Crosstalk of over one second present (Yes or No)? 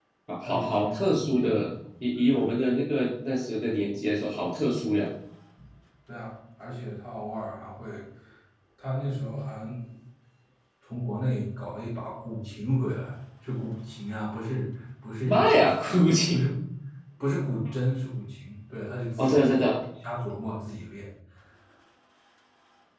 Yes